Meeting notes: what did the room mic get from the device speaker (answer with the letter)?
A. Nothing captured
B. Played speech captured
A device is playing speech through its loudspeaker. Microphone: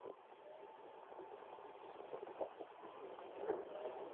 A